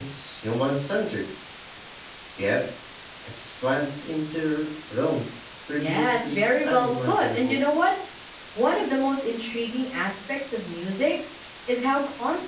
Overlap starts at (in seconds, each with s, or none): 5.8 s